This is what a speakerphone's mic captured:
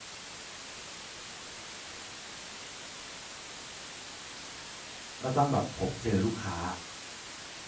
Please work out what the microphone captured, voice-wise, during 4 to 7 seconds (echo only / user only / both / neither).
user only